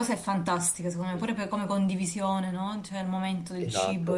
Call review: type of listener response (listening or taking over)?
taking over